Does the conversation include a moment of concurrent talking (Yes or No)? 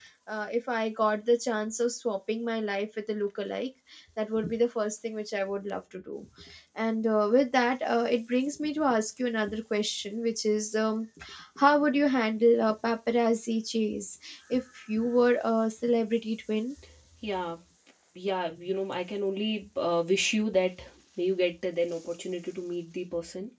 No